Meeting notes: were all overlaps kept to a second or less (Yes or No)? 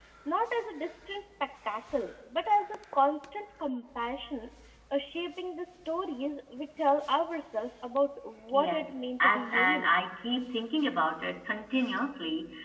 No